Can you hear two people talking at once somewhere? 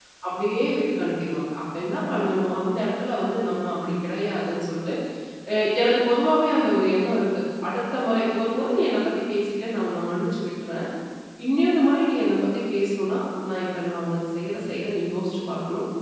No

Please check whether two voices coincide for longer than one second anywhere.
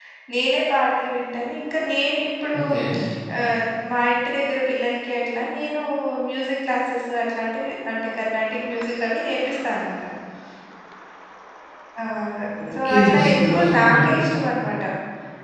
Yes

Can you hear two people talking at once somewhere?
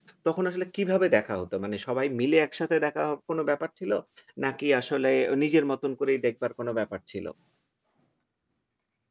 No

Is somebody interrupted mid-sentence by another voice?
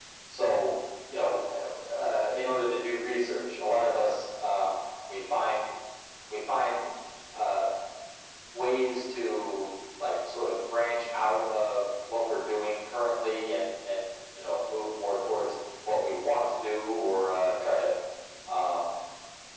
No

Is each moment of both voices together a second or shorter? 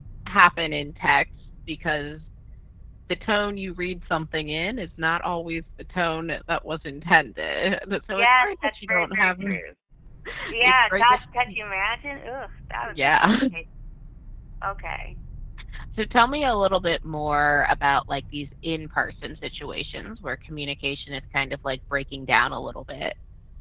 No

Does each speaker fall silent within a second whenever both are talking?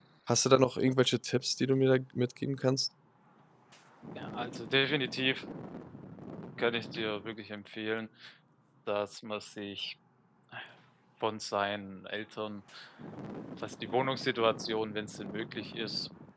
Yes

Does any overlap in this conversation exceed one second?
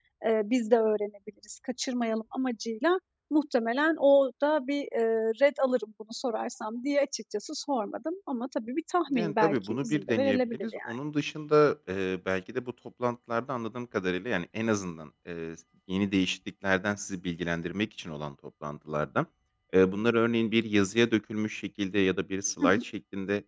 Yes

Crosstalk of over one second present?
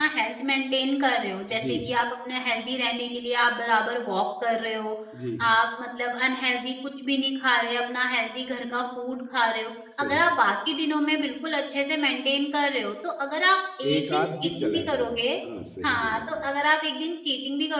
Yes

